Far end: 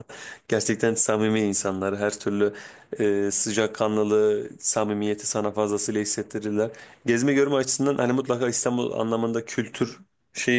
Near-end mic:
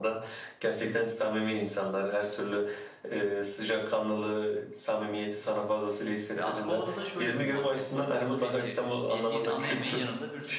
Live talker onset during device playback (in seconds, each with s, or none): 6.4 s